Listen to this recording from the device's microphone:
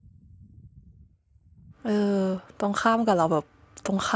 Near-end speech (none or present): present